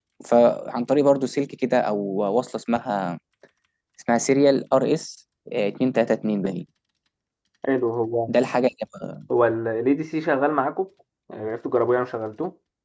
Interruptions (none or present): none